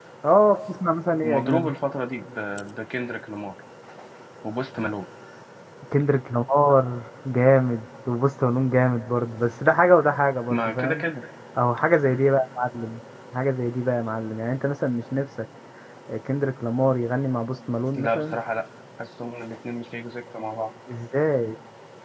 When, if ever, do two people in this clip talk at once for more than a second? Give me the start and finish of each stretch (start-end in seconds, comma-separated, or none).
none